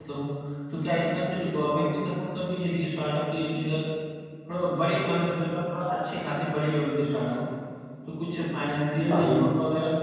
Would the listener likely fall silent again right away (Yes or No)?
Yes